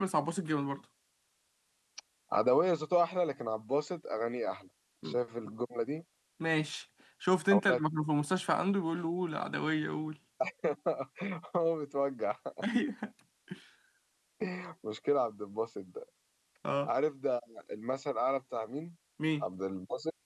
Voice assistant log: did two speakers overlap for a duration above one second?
No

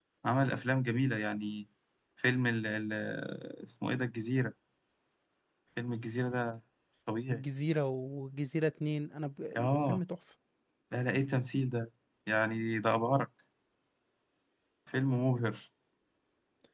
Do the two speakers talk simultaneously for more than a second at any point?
No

